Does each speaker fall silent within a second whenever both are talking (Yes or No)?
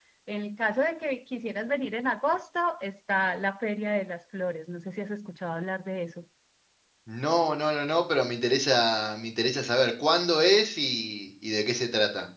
Yes